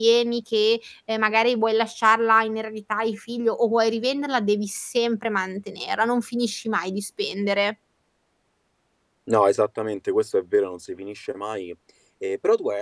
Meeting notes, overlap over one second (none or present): none